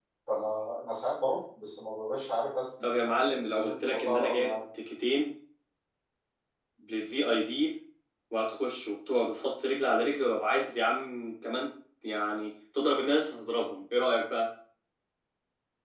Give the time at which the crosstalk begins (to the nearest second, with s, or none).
3 s